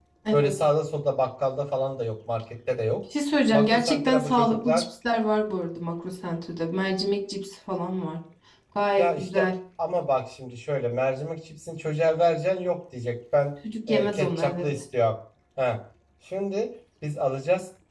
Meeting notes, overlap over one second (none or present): present